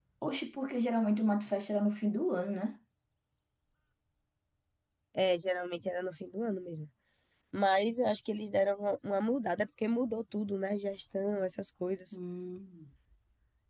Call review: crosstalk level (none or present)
none